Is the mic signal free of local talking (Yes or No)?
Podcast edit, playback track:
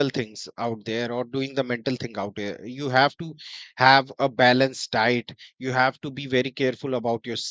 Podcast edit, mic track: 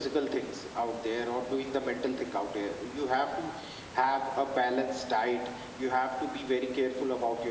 Yes